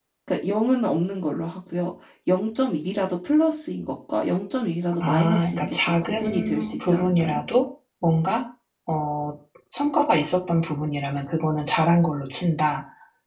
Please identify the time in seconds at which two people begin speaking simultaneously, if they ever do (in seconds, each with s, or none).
5.0 s